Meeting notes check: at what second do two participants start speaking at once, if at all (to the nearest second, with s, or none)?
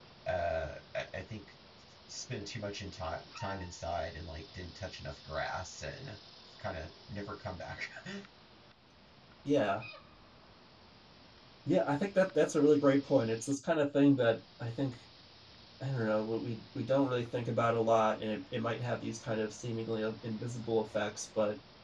none